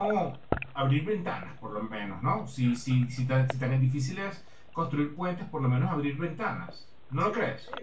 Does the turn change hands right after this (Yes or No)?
Yes